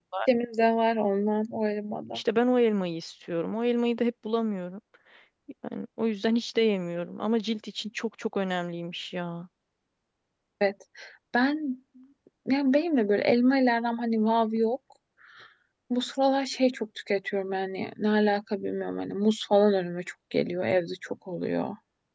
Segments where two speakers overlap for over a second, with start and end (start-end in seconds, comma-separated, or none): none